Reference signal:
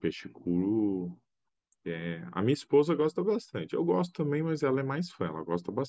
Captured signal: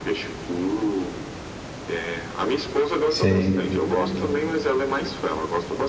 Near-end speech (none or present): present